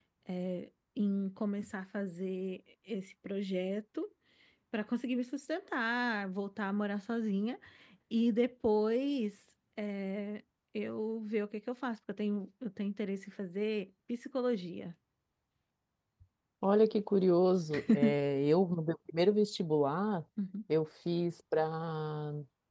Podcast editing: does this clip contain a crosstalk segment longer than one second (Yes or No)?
No